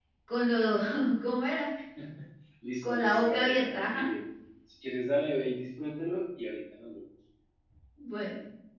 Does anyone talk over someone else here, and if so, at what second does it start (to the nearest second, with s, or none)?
3 s